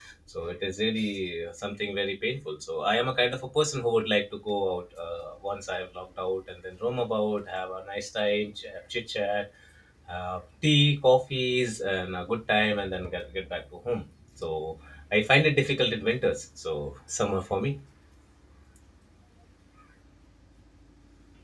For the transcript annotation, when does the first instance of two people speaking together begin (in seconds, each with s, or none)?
none